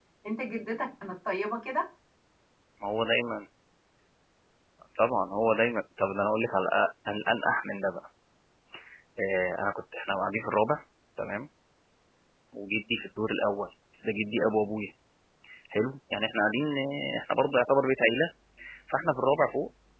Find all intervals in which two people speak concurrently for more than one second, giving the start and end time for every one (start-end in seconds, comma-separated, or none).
none